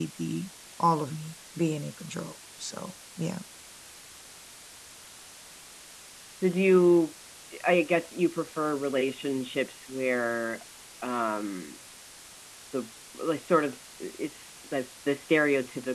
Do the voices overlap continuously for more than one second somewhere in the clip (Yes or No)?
No